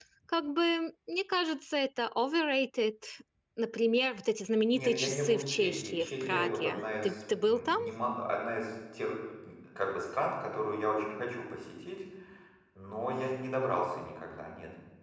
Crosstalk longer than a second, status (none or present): present